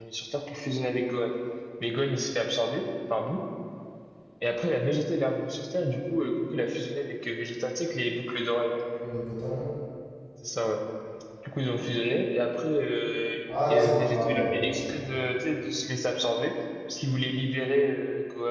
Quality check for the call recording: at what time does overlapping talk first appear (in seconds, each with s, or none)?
13.5 s